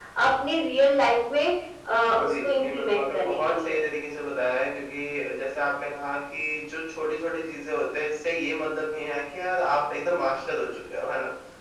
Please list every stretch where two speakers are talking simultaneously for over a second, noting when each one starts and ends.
2.2-3.8

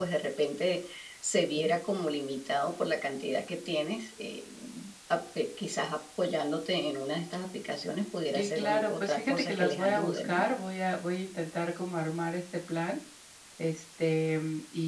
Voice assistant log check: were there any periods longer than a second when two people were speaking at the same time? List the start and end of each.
8.3-10.4

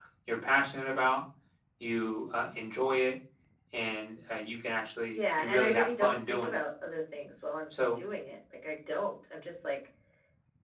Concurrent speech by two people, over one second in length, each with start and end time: 5.1-6.6

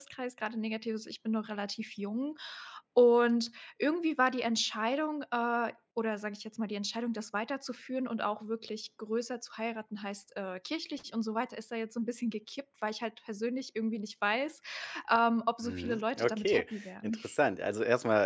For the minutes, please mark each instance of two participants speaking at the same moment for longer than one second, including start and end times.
15.6-17.2

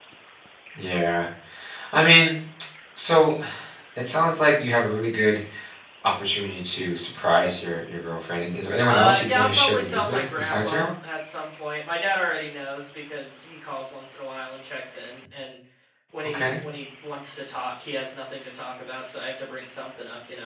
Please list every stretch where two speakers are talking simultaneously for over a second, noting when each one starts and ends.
8.9-10.9

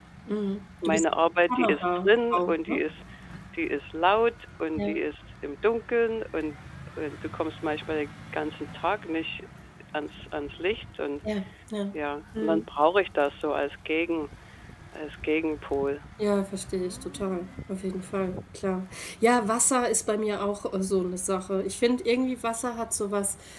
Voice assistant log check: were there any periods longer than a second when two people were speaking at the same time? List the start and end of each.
1.5-2.8

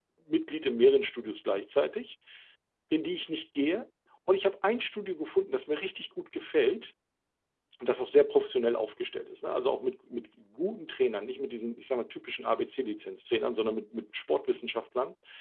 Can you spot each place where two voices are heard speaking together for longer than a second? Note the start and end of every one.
none

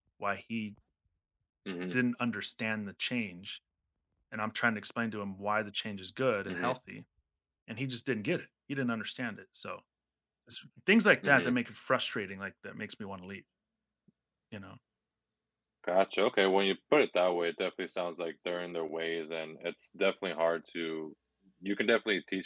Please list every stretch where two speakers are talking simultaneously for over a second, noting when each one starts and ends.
none

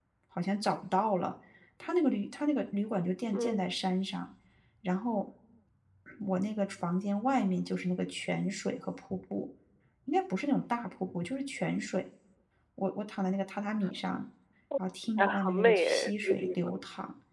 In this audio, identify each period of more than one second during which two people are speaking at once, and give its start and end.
15.2-16.6

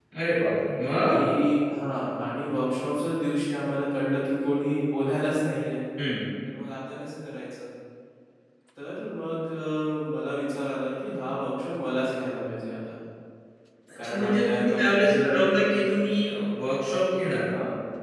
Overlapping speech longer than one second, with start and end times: 14.0-15.9

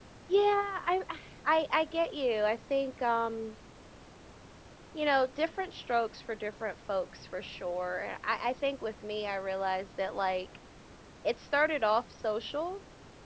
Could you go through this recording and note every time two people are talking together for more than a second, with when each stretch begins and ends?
none

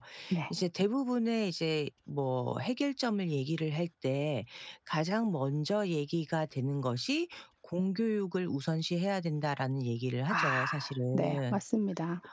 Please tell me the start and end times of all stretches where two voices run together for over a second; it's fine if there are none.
10.3-11.6

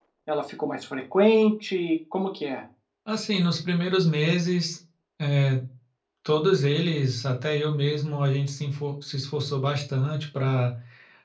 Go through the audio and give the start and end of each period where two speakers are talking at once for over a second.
none

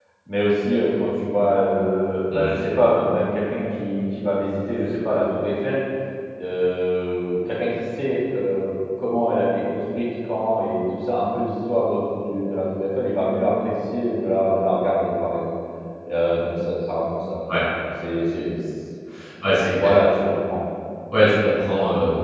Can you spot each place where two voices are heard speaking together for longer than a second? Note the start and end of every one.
none

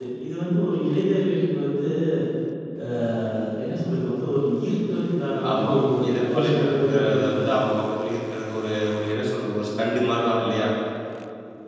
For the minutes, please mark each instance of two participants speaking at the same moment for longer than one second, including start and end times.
6.1-7.6

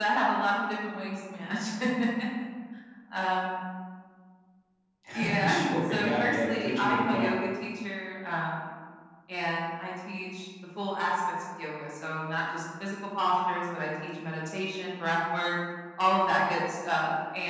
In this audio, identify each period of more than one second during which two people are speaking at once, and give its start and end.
5.4-7.4

